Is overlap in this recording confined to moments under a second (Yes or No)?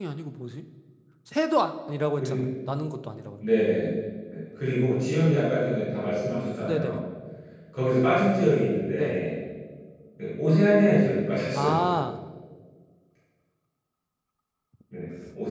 Yes